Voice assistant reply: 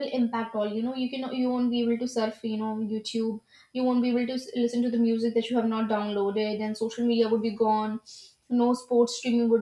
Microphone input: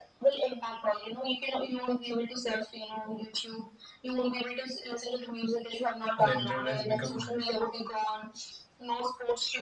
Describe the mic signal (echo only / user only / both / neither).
both